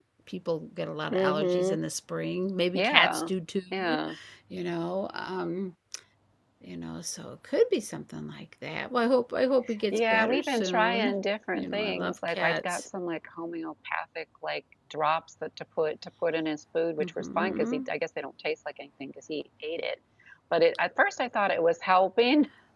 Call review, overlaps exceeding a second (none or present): present